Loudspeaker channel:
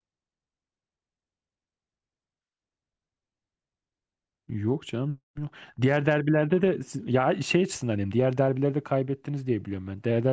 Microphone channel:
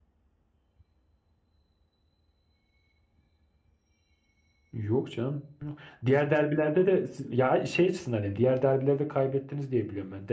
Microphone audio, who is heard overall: echo only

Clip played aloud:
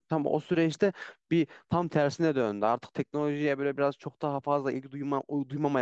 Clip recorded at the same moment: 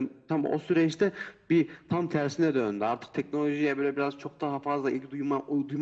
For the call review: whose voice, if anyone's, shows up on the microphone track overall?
echo only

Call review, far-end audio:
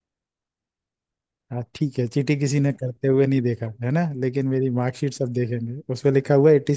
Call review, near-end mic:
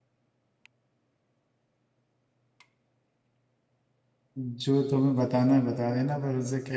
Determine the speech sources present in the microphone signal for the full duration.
user only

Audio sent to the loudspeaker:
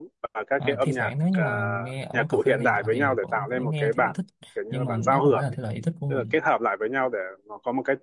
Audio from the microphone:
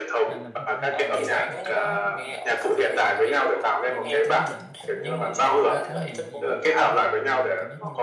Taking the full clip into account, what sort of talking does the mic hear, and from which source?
both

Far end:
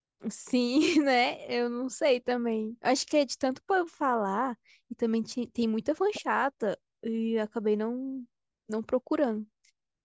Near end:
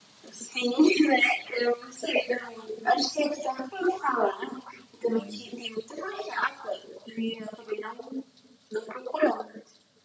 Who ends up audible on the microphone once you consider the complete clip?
both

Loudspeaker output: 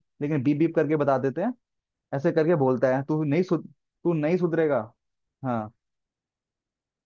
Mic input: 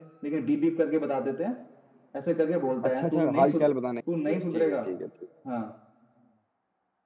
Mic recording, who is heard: both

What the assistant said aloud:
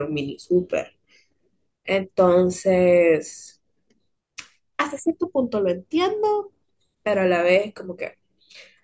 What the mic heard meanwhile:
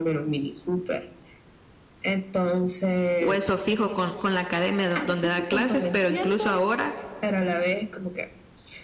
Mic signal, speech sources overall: both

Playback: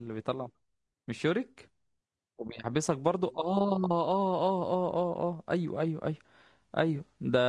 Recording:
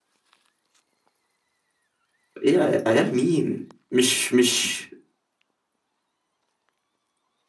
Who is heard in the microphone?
user only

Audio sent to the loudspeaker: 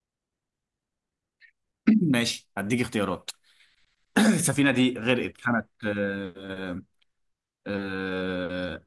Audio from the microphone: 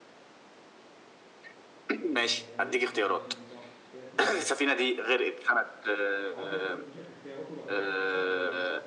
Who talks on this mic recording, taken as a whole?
both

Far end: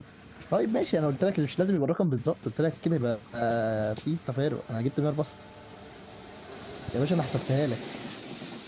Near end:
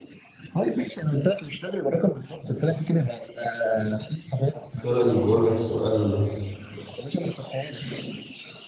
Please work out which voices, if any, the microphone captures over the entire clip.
both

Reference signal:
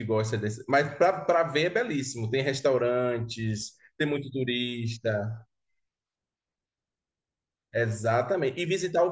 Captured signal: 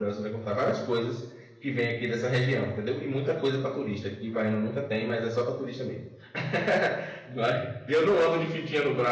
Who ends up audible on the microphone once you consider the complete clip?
user only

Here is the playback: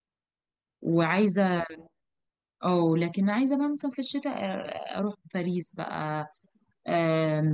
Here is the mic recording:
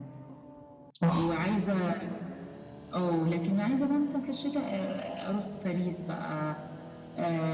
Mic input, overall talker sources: both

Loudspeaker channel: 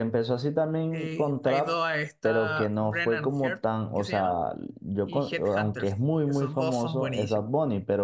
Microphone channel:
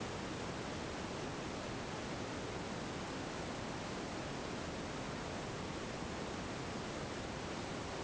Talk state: neither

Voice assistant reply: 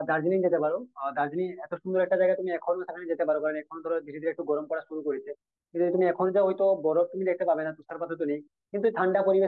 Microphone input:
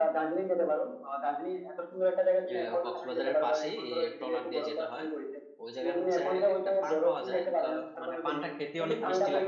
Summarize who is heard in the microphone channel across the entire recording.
both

